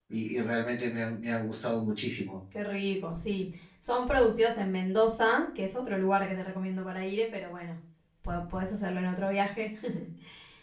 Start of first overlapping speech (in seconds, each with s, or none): none